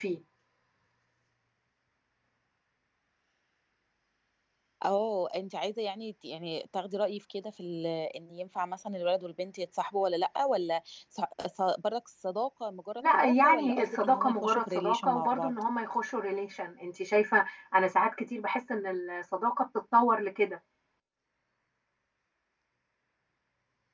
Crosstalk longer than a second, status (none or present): present